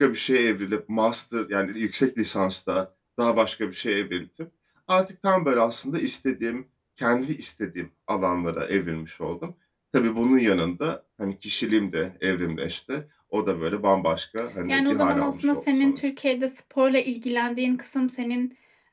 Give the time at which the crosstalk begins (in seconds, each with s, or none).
14.7 s